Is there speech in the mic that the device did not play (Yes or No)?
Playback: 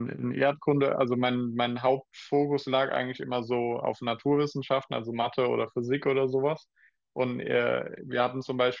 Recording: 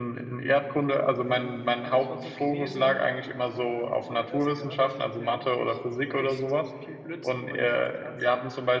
Yes